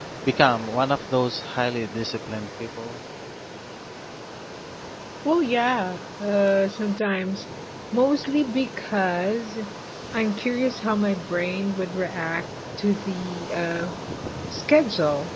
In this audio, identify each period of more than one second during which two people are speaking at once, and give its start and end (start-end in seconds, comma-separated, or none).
none